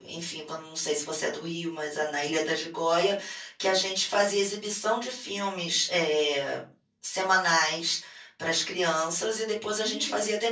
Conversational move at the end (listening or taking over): listening